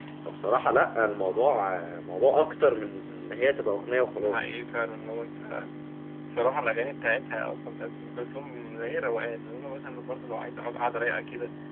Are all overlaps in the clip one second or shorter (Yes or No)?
Yes